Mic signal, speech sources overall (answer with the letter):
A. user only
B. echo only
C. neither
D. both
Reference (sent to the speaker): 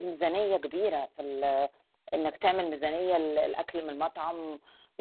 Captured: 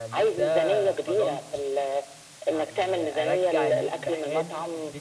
D